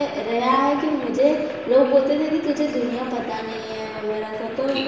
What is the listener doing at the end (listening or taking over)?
taking over